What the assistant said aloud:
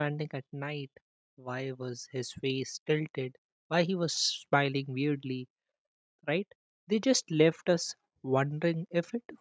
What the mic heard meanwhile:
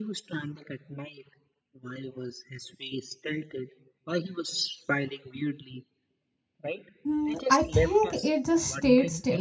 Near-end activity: present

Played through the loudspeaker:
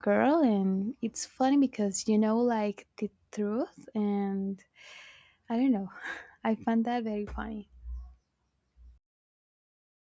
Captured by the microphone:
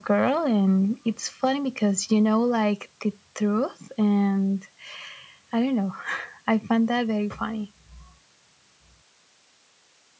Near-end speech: none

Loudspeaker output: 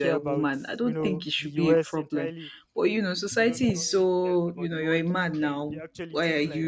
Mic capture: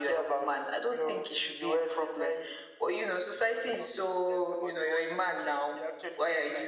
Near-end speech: none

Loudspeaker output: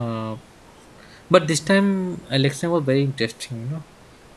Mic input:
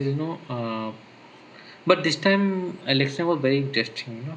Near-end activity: none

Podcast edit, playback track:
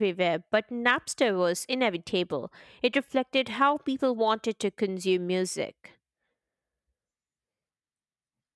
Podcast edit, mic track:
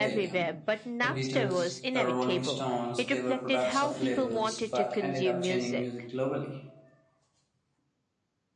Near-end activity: present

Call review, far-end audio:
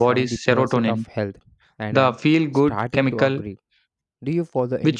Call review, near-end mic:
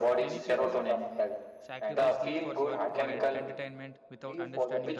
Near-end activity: present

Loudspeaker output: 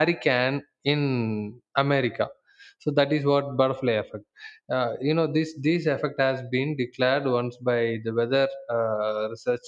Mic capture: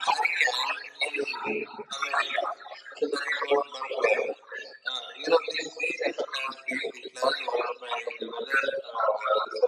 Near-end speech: none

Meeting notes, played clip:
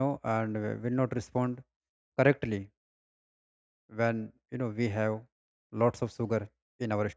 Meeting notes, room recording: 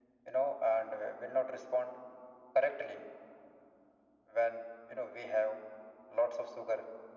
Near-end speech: none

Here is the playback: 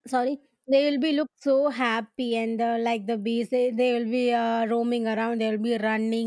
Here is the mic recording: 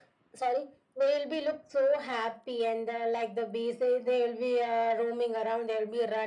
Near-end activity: none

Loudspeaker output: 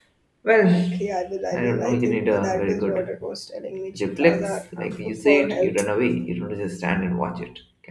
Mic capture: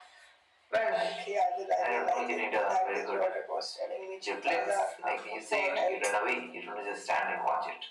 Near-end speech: none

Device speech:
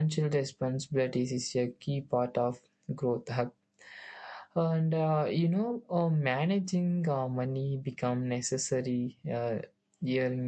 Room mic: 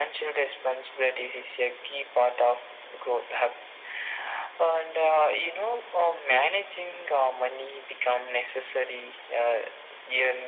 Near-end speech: none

